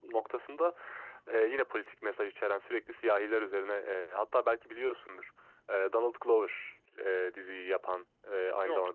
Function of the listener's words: listening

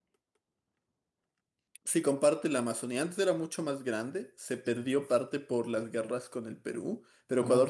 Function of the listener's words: listening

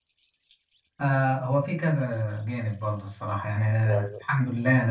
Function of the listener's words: listening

